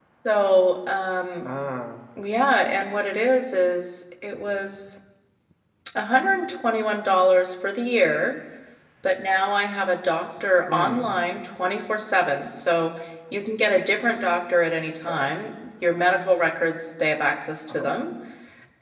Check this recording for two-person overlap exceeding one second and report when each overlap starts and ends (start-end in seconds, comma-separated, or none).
none